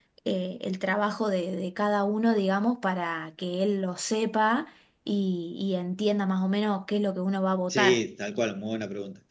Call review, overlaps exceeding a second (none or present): none